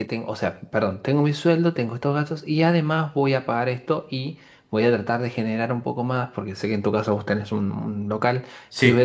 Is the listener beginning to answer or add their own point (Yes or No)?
No